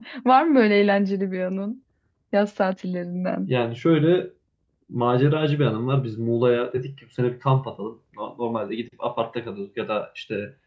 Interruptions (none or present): none